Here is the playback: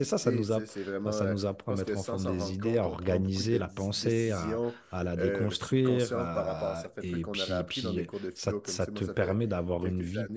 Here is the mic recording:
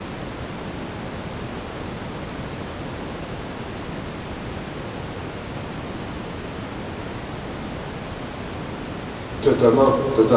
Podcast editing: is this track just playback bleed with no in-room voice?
No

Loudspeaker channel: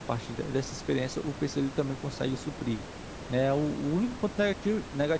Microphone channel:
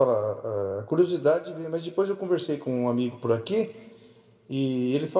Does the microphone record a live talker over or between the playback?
Yes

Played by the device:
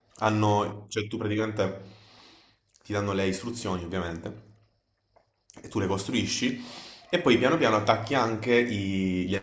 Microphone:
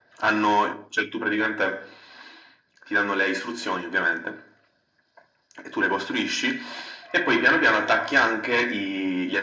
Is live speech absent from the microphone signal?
Yes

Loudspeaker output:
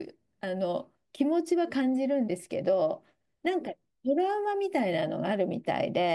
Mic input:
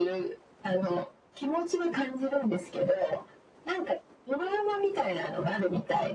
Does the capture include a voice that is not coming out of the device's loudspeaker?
No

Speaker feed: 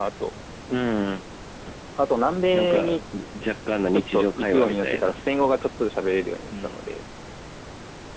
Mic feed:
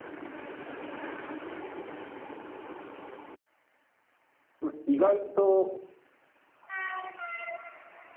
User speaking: Yes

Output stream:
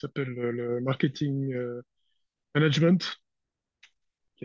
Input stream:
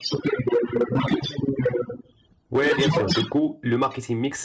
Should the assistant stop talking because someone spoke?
Yes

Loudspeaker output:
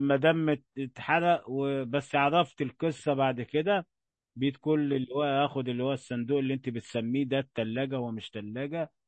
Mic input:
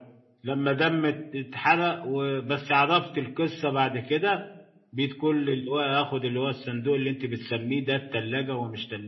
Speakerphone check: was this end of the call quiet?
Yes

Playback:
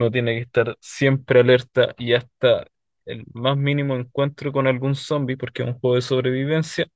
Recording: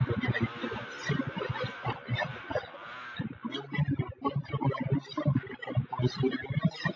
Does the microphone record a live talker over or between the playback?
No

